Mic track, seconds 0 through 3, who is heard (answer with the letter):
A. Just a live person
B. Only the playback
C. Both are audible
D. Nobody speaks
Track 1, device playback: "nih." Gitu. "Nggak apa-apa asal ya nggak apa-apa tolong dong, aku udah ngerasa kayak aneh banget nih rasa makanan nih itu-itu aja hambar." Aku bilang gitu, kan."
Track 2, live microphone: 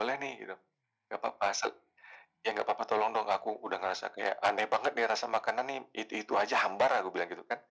B